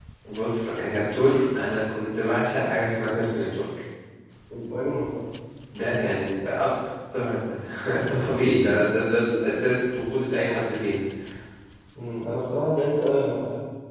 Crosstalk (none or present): none